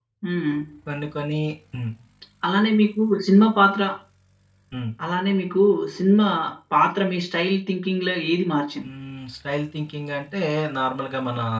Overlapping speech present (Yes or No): No